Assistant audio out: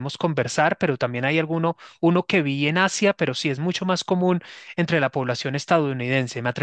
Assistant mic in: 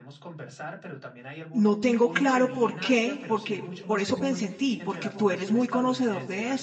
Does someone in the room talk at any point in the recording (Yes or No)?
Yes